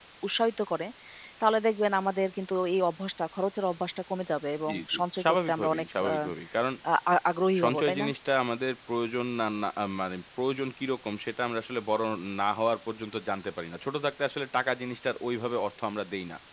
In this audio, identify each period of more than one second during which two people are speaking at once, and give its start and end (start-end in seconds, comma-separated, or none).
4.7-6.3